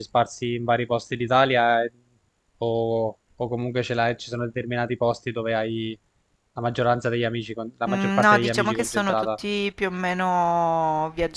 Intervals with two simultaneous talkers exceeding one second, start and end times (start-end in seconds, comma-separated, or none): 7.9-9.3